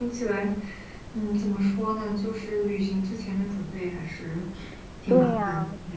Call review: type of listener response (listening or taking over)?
taking over